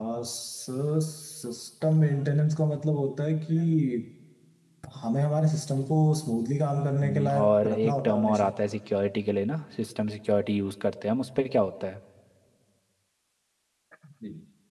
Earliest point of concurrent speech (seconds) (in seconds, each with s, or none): 7.0 s